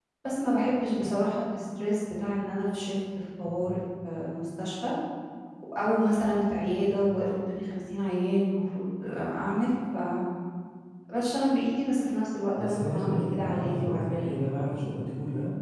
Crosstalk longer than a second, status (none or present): present